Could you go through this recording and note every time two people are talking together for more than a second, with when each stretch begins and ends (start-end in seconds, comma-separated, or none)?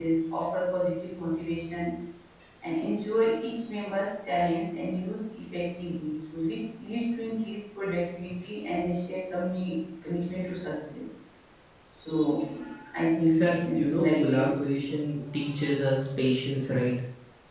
13.2-14.6